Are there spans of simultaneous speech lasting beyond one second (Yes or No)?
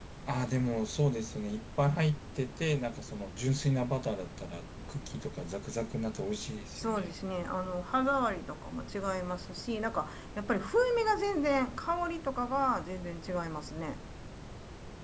No